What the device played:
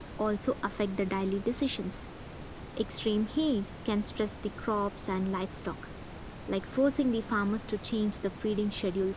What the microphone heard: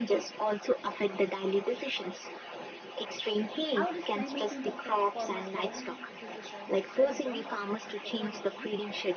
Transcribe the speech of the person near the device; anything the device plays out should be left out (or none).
How does climate change affect farmers' daily decisions and long-term planning according to you?